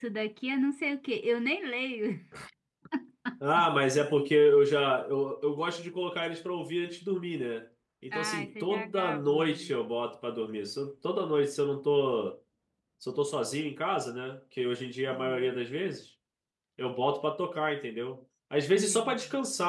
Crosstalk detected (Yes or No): Yes